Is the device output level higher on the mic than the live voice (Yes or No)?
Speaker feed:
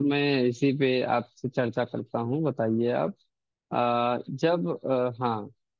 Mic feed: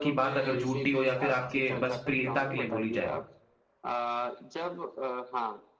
No